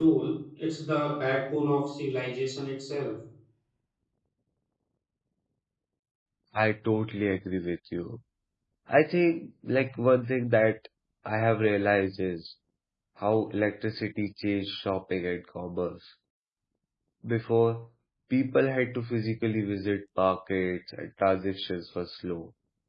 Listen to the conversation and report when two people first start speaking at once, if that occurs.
none

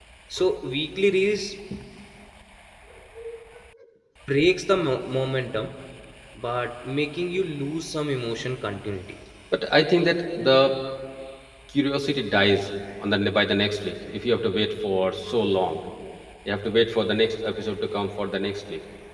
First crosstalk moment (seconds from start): none

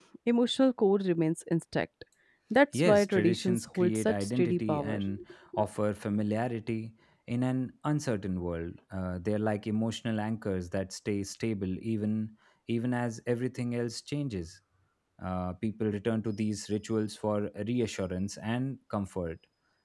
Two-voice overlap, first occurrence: 3 s

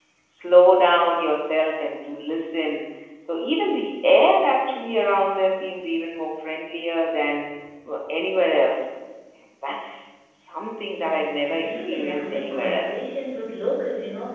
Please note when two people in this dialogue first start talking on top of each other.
11 s

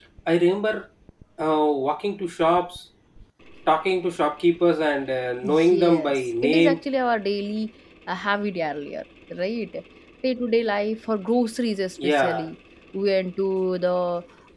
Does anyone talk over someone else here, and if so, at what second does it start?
5 s

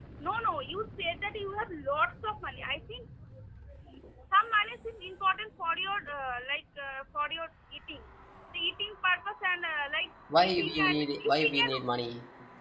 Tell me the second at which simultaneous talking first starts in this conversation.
10 s

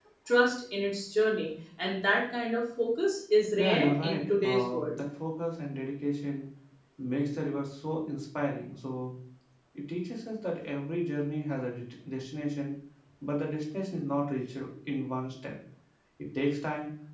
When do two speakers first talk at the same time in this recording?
4 s

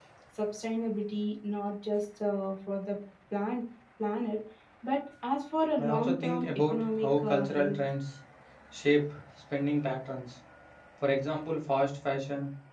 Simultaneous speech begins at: 6 s

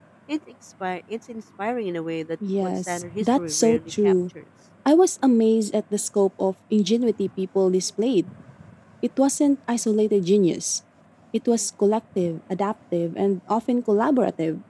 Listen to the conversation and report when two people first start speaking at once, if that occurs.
2 s

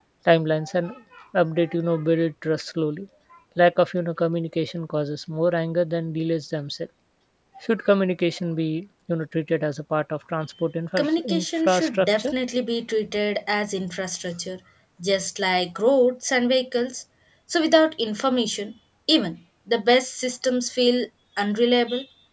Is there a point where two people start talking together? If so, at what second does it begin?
11 s

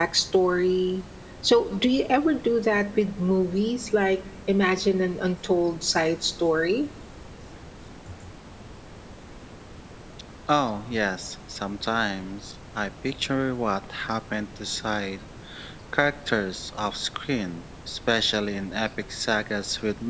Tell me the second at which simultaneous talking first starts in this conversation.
none

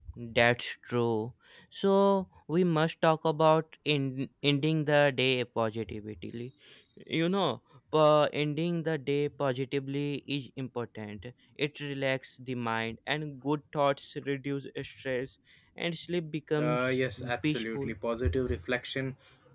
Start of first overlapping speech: 17 s

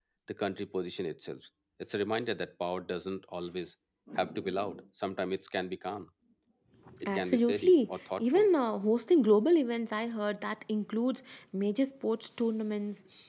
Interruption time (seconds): 7 s

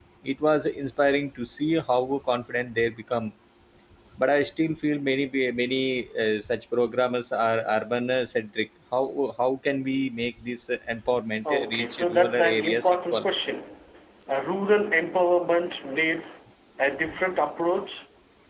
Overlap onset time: 11 s

